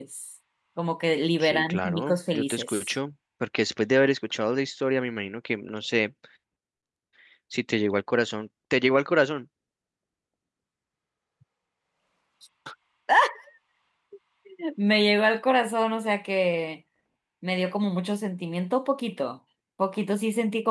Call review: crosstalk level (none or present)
present